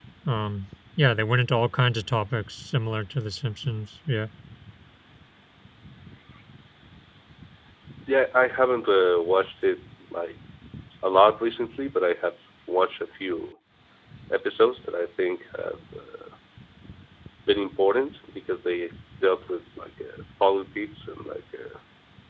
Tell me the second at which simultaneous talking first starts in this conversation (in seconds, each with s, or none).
none